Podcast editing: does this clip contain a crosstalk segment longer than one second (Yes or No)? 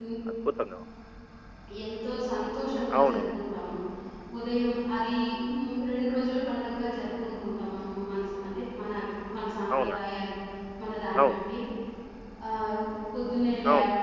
No